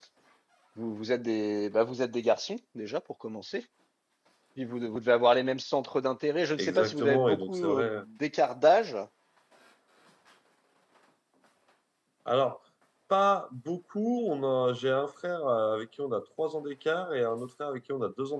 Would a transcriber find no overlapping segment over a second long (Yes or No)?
No